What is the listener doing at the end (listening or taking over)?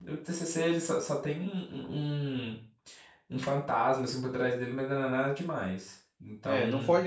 taking over